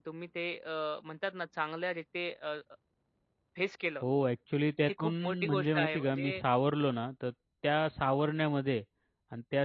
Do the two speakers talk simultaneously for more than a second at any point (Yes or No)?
Yes